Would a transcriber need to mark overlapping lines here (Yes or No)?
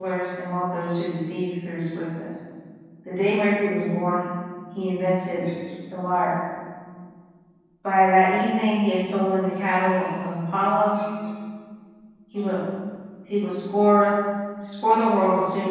No